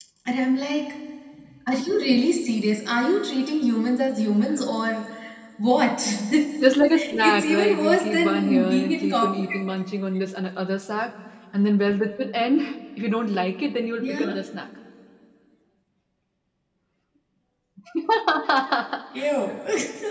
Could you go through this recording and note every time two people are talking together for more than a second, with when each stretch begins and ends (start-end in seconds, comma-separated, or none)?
7.1-9.3